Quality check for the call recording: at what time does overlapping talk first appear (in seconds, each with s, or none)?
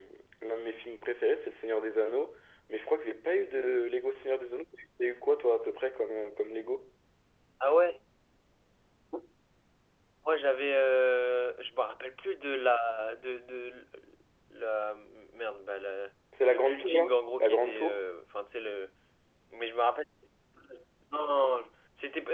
16.4 s